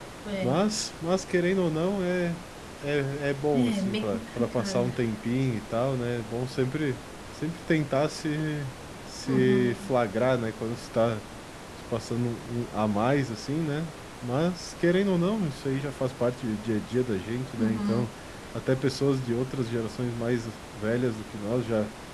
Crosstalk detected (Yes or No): Yes